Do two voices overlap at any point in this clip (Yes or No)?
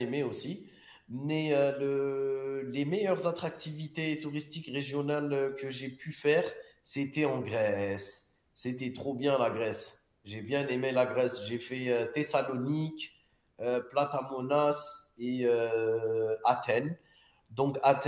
No